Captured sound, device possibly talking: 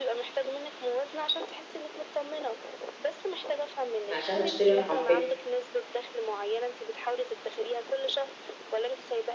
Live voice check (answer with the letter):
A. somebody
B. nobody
A